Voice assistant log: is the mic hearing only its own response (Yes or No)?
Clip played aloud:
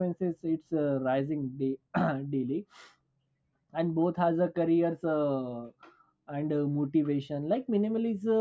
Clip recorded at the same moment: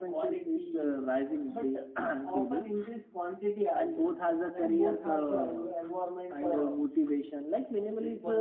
No